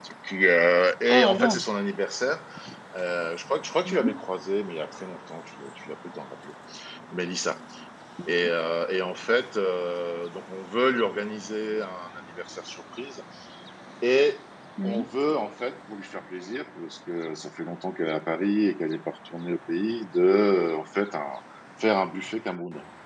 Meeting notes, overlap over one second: none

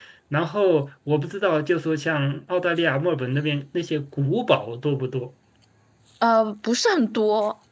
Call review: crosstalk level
none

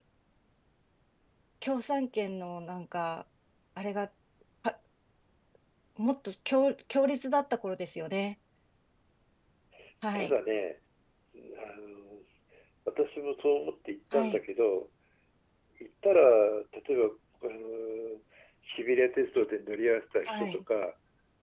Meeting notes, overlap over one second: none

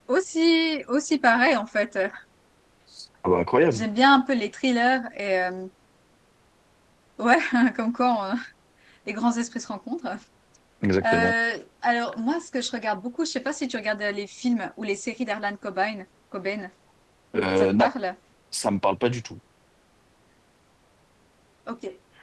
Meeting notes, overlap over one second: none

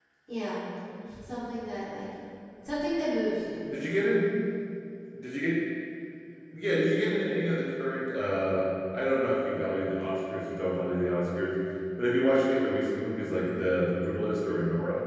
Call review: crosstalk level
none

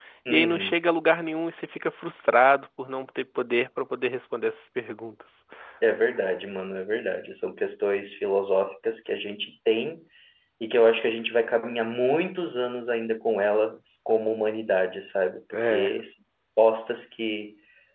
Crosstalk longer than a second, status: none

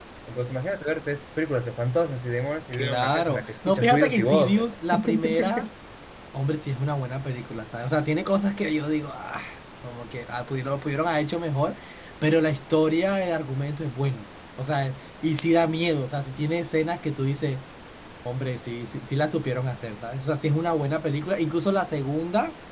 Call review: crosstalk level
present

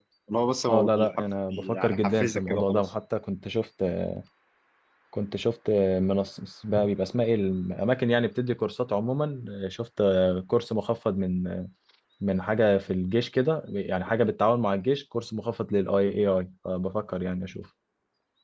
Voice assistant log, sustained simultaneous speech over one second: present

